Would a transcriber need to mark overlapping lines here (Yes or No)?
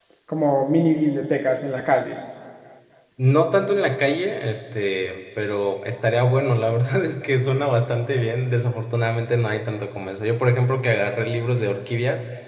No